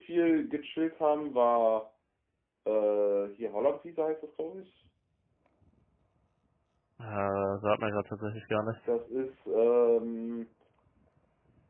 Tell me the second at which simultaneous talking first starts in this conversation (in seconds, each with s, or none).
none